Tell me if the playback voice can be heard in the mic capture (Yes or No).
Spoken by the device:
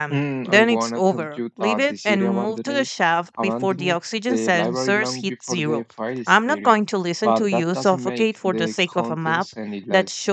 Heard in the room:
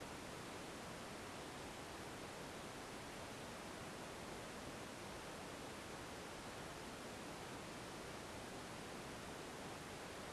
No